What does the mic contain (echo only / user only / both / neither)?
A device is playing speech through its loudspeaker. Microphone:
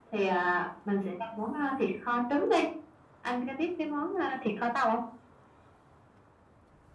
echo only